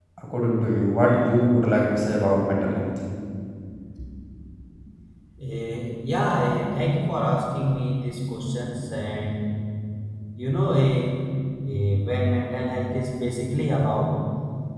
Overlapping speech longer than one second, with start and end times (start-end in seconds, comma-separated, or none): none